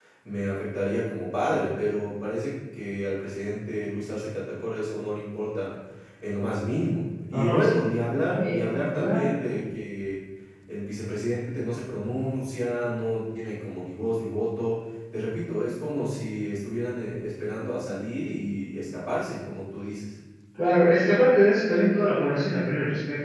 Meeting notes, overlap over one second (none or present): present